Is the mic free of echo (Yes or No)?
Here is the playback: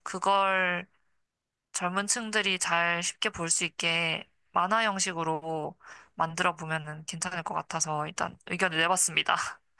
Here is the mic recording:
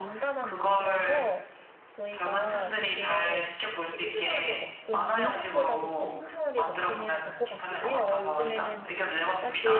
No